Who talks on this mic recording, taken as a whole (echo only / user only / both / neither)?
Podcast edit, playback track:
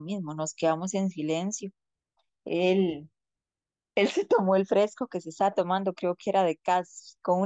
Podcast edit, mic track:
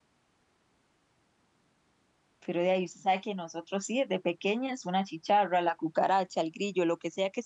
user only